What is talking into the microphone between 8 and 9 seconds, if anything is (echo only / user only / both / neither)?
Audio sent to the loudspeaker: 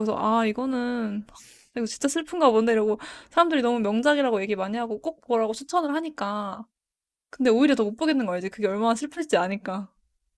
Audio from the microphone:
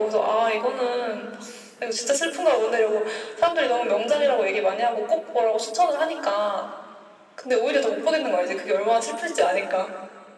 echo only